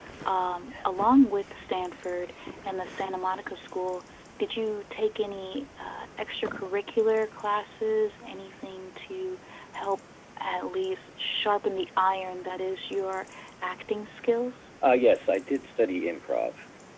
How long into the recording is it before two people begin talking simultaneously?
none

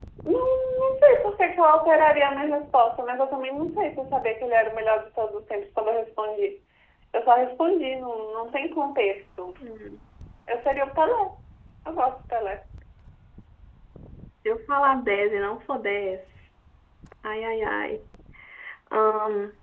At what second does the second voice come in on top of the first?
none

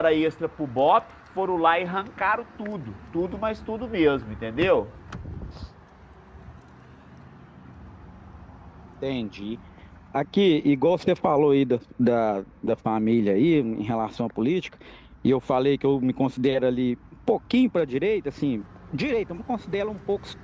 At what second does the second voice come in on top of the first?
none

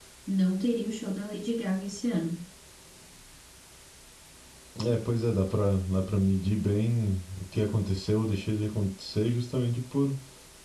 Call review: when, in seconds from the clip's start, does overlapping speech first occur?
none

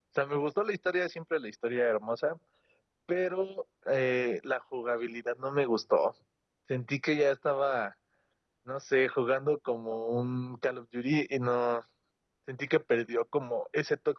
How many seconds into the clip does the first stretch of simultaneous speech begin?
none

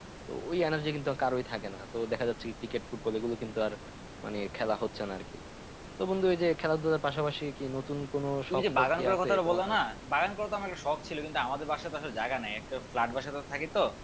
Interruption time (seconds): 8.5 s

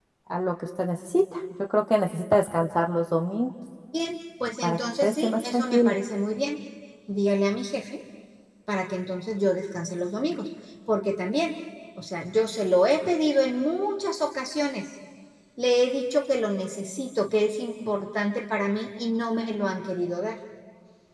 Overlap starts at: 4.6 s

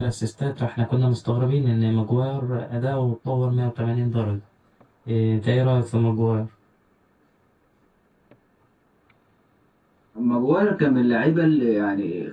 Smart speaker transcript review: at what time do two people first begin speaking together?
none

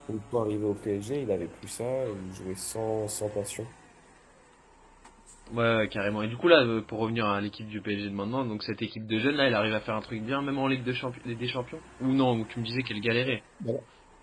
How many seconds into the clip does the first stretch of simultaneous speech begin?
none

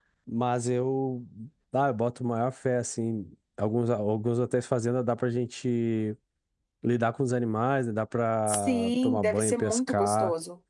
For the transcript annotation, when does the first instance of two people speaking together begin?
8.5 s

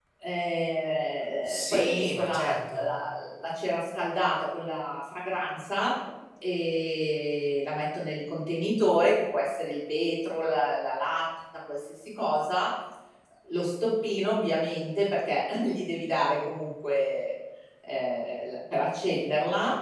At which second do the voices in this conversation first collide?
1.4 s

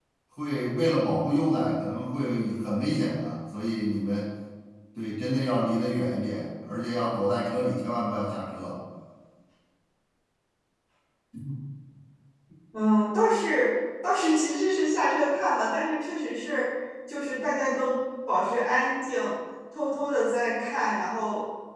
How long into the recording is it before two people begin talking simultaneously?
none

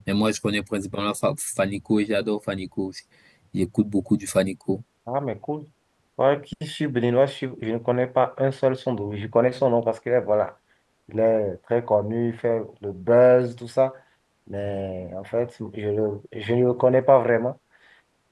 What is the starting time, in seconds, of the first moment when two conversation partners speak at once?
none

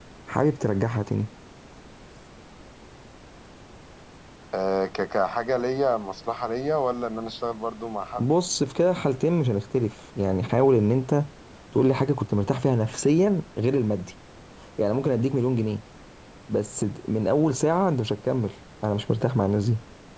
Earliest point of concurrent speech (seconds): none

